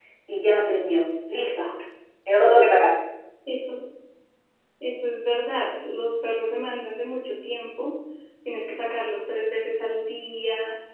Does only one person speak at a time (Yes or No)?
Yes